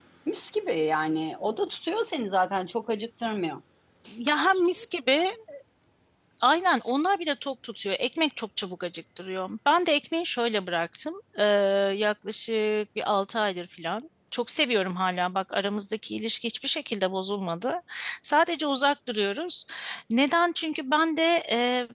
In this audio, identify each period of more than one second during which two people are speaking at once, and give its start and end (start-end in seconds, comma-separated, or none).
none